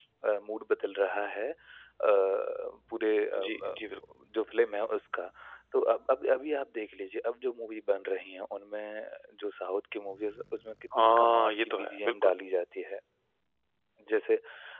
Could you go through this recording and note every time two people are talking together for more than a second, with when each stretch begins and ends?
11.0-12.3

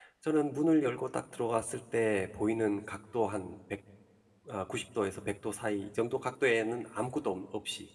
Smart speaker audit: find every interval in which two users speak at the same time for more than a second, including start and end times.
none

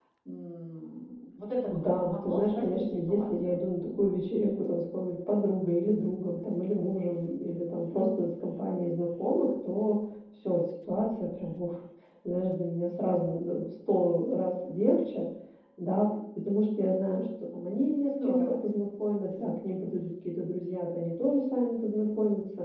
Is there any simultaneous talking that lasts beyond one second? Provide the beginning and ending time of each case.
1.7-3.6

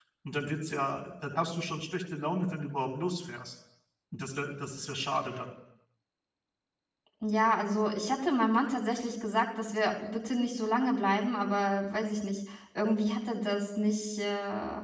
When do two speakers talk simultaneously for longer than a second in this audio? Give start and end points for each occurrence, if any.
none

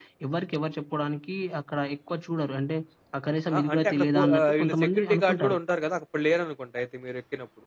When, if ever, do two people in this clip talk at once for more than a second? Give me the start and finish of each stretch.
3.5-5.6

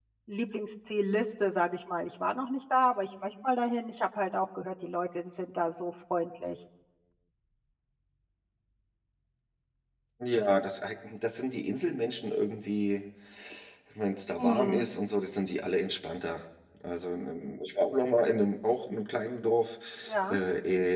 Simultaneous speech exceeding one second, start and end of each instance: none

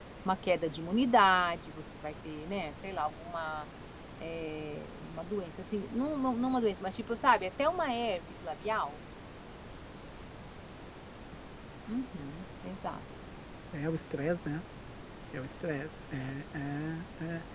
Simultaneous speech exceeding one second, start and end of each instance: none

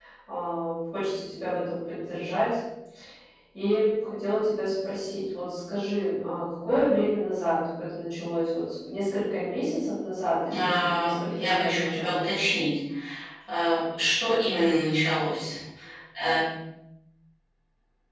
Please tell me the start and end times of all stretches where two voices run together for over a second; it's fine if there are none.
10.5-12.1

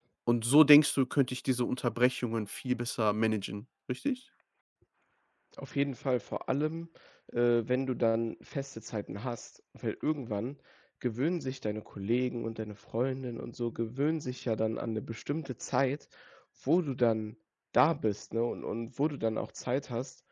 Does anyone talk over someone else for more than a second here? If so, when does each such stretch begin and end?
none

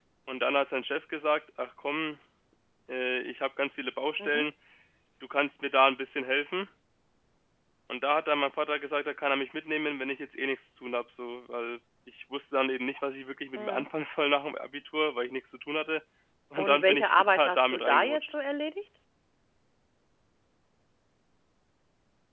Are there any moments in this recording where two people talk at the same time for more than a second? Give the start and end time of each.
16.6-18.3

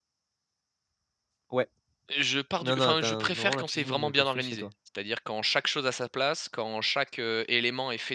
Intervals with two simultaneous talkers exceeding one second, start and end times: 2.6-4.7

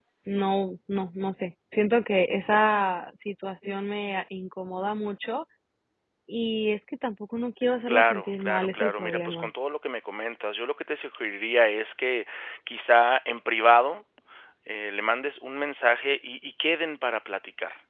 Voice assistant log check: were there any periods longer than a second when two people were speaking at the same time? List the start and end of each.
7.9-9.5

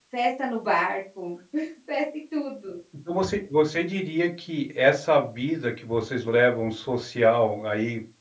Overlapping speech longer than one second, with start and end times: none

